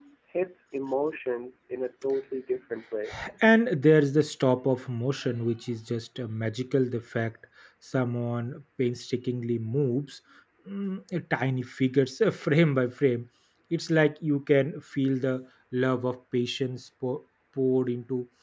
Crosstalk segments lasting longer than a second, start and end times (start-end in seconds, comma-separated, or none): none